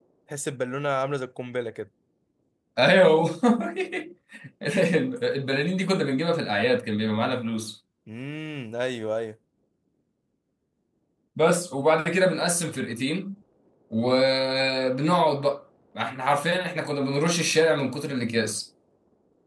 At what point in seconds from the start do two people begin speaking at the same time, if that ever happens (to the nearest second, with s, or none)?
none